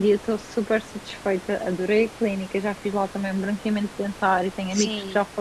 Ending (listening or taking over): listening